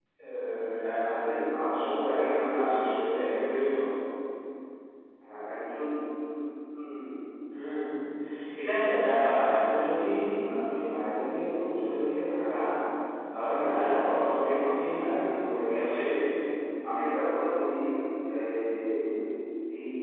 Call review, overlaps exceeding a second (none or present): present